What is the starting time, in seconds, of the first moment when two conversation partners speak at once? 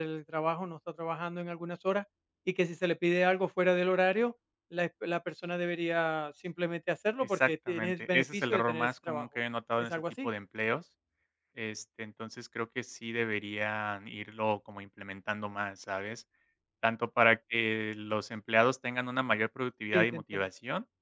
7.3 s

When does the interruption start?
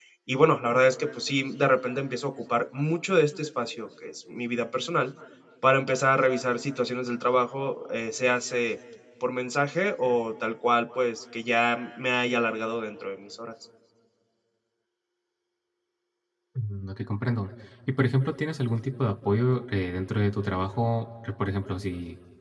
none

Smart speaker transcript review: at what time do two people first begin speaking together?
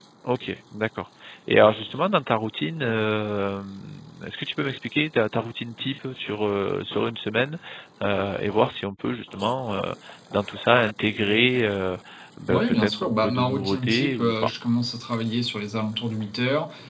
12.5 s

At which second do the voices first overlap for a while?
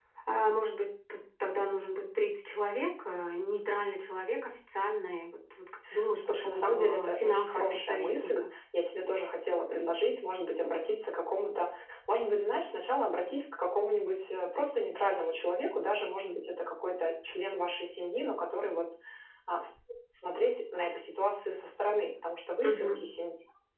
6.2 s

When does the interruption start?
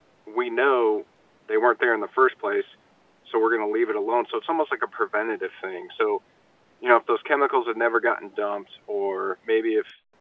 none

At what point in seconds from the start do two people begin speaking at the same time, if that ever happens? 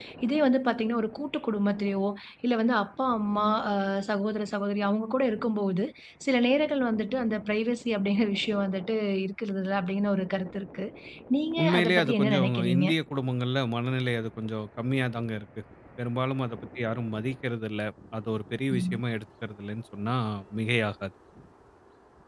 11.6 s

